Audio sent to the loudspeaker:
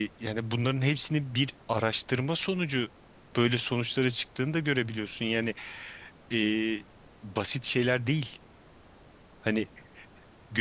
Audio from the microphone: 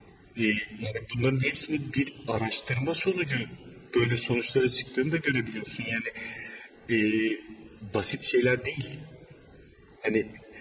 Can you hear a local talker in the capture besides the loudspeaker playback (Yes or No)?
No